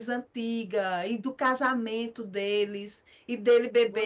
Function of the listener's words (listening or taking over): listening